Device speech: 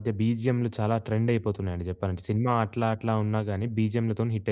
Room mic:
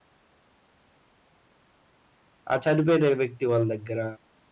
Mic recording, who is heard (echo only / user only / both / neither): user only